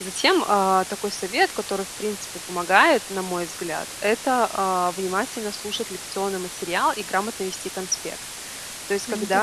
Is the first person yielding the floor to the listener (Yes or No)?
No